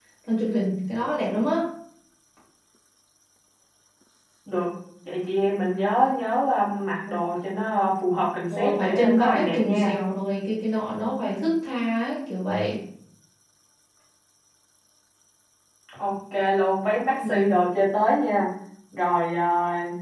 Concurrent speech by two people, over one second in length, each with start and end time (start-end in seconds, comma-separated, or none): 8.6-9.9